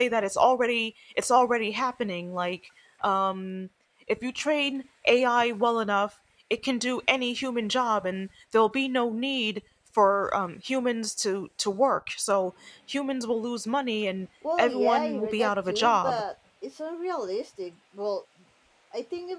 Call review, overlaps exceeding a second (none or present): present